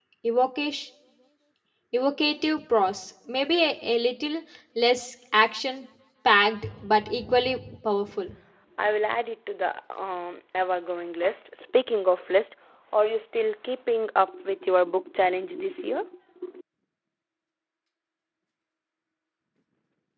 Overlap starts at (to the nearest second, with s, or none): none